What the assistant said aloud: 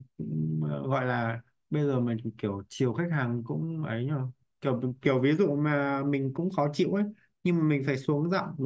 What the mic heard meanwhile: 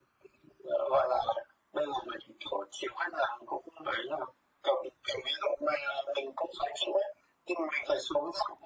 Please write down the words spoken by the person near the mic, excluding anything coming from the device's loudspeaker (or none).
none